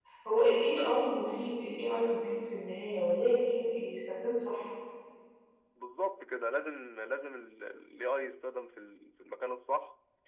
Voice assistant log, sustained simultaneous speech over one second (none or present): none